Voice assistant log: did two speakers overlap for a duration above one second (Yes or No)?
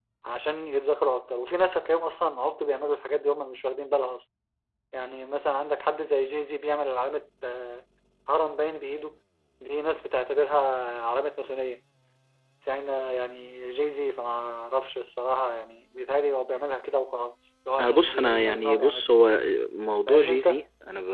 Yes